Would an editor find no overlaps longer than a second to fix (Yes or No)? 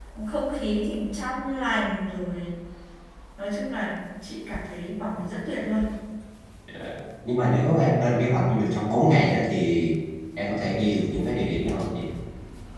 Yes